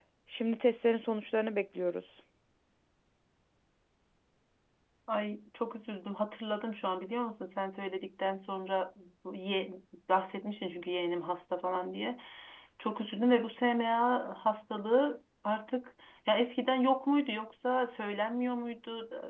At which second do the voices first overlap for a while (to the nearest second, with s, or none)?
none